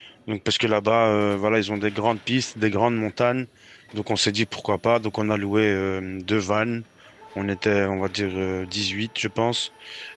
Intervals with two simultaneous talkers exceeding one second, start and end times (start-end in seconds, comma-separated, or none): none